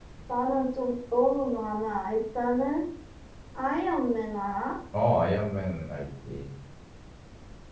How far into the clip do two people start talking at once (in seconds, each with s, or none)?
none